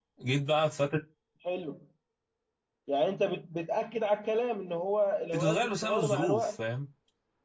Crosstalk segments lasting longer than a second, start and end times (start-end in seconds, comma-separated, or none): 5.3-6.6